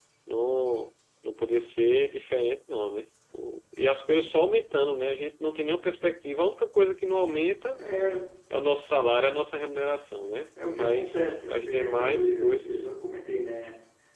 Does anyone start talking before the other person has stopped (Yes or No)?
Yes